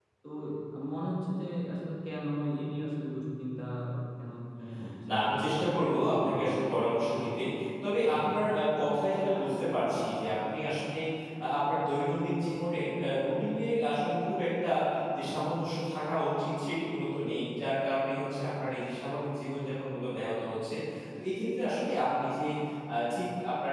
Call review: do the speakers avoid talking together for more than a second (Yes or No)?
No